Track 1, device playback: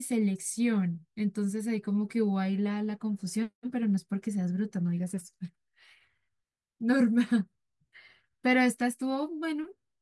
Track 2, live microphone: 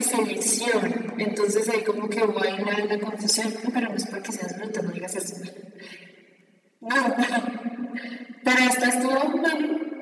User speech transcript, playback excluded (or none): none